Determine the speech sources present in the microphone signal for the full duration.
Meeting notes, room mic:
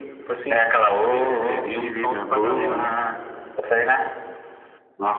echo only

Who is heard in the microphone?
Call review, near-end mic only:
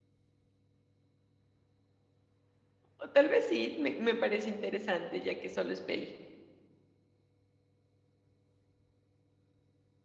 user only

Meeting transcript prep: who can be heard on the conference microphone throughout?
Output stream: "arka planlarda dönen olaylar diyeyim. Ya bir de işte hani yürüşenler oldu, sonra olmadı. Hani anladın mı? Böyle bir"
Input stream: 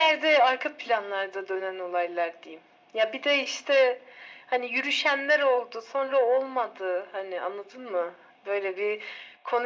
echo only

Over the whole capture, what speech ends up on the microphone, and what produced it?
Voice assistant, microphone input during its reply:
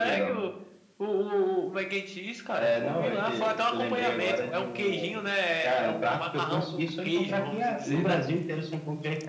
echo only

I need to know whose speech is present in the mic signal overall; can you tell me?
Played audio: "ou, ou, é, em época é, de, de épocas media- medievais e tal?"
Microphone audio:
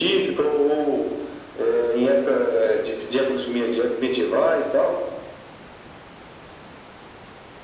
echo only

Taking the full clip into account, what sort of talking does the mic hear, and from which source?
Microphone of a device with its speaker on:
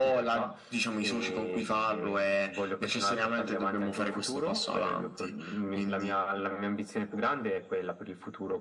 echo only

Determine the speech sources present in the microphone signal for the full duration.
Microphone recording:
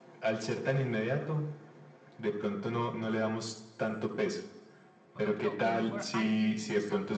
both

